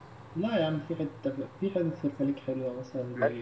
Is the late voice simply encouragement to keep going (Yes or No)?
No